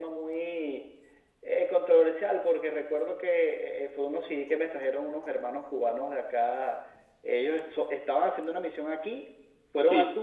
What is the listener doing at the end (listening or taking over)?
listening